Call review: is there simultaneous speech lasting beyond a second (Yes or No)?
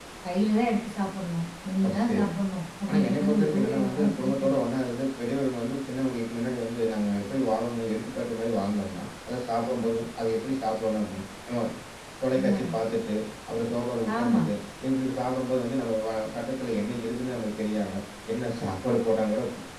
Yes